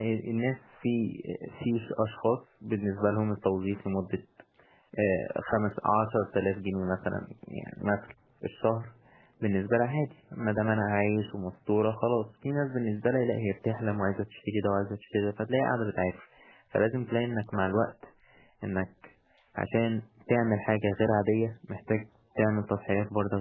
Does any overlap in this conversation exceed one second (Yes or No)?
No